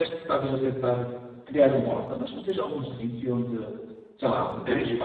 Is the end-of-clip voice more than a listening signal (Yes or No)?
Yes